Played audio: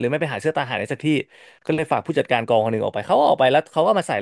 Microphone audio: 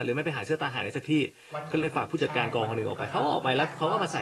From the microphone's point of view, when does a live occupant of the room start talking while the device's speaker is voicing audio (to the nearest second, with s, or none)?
2 s